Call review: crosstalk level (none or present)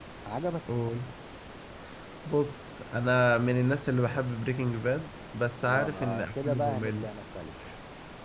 present